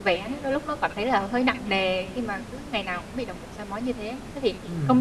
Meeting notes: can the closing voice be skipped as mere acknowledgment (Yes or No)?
Yes